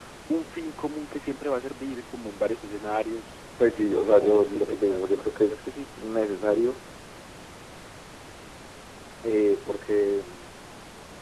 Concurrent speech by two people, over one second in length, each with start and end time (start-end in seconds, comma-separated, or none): 3.9-5.9